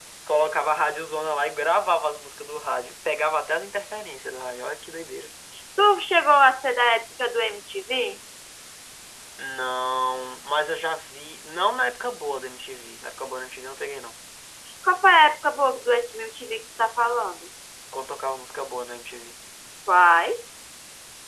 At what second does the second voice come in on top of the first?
none

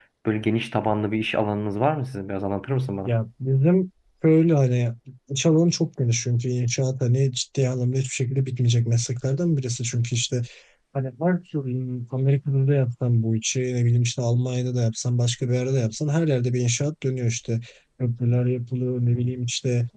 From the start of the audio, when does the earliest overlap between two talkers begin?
none

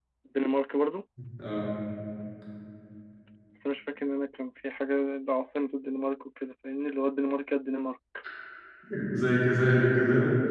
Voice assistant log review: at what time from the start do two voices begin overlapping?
none

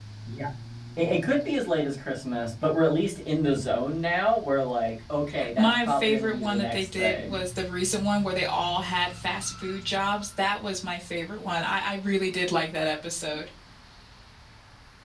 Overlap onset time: 5.6 s

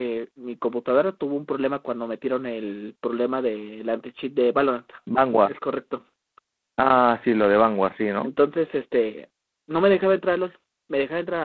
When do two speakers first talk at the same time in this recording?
none

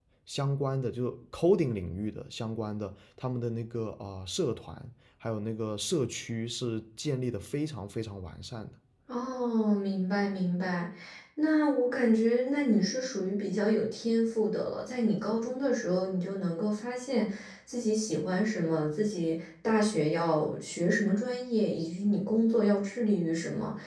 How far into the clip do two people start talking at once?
none

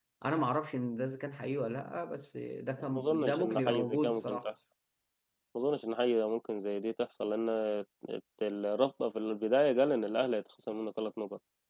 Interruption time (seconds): 2.8 s

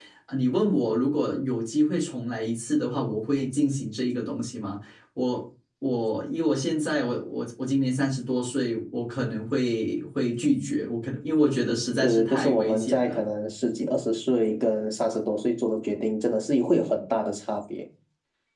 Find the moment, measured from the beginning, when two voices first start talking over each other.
12.0 s

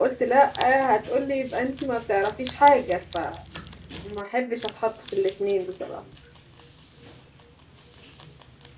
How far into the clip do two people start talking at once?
none

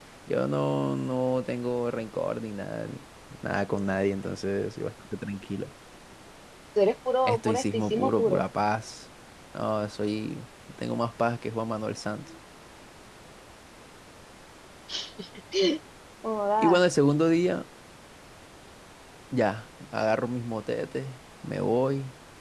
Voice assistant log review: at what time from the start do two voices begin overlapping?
7.2 s

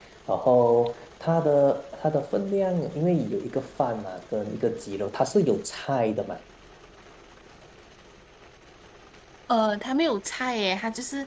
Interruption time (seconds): none

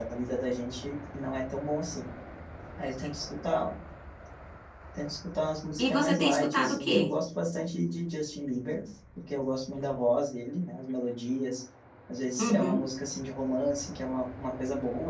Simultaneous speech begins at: 5.8 s

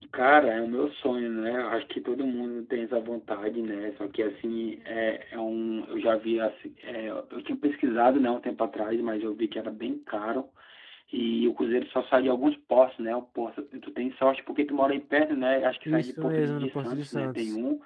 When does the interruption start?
15.8 s

